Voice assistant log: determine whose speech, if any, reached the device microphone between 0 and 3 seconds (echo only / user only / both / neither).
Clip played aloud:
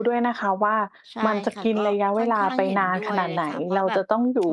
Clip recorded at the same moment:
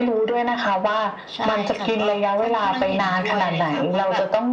echo only